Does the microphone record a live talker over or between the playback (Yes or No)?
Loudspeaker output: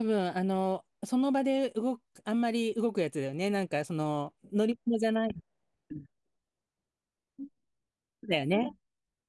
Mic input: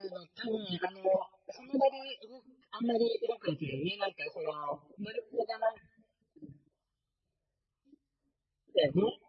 No